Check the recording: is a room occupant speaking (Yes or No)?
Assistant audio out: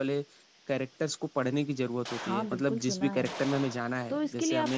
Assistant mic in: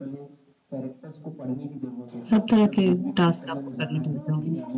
Yes